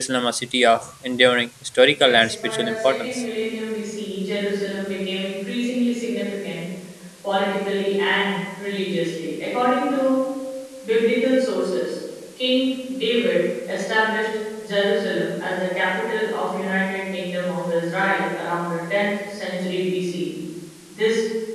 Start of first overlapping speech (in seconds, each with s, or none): 1.9 s